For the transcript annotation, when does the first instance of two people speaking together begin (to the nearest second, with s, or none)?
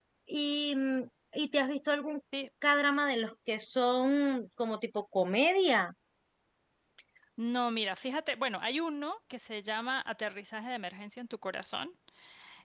none